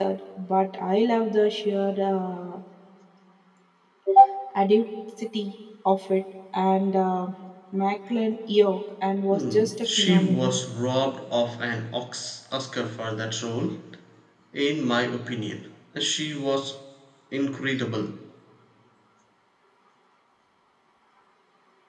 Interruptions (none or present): present